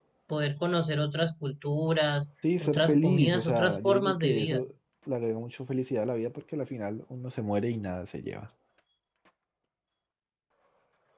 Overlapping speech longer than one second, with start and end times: 2.6-4.6

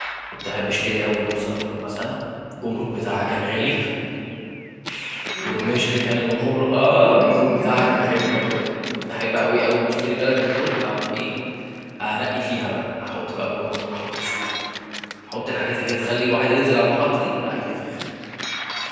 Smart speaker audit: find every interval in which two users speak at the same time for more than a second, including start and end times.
7.0-8.2

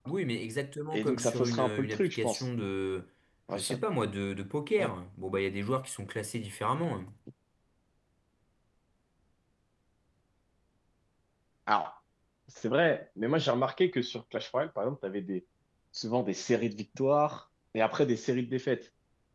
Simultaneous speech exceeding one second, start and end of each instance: 0.9-2.5

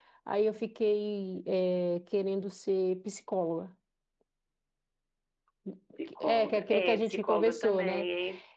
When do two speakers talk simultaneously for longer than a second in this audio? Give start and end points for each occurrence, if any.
6.2-8.1

